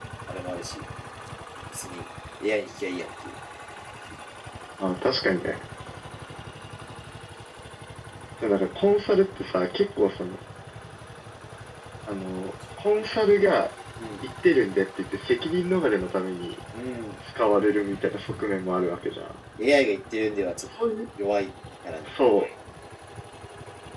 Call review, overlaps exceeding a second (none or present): none